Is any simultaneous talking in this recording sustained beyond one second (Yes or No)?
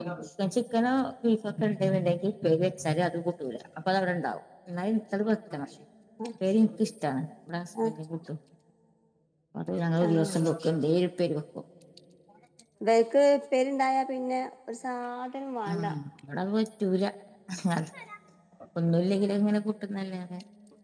No